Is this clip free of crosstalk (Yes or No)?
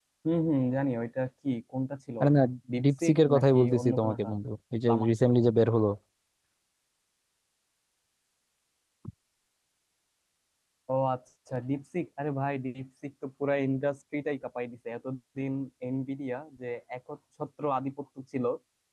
No